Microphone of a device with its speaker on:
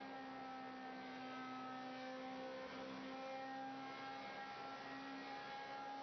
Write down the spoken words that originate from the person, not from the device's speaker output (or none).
none